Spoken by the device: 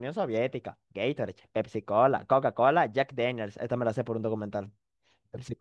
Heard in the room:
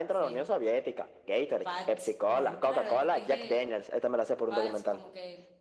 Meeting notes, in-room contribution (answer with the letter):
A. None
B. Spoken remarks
B